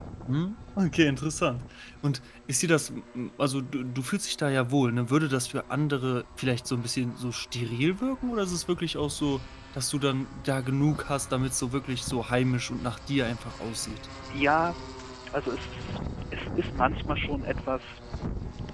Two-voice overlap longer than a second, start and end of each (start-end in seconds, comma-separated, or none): none